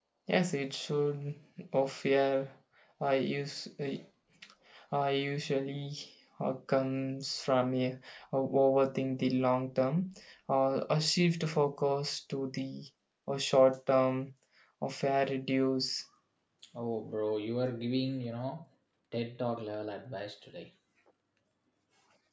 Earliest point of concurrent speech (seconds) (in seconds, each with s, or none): none